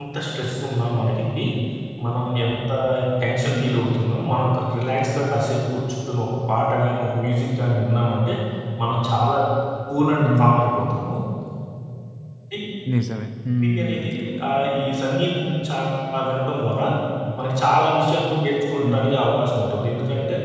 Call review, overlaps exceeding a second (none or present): none